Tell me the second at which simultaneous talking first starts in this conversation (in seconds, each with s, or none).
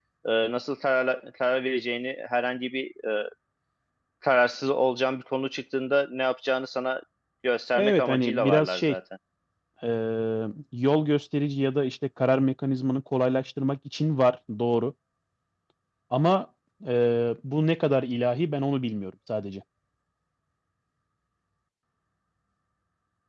7.7 s